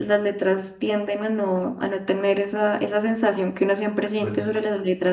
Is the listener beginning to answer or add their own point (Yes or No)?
No